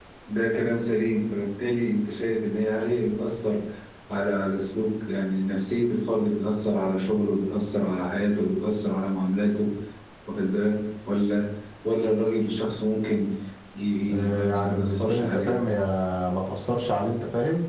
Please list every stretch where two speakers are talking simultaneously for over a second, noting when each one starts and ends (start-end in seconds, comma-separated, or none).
14.3-15.6